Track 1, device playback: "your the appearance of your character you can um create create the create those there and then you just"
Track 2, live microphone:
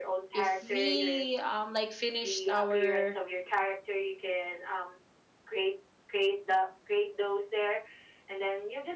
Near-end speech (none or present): present